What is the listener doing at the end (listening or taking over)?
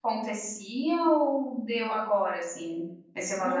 taking over